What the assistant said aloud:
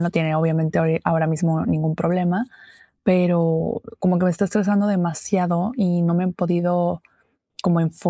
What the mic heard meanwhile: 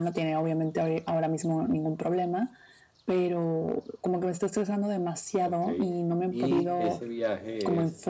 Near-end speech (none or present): present